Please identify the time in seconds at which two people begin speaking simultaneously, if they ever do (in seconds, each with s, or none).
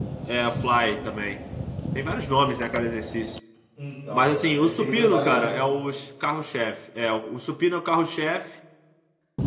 4.1 s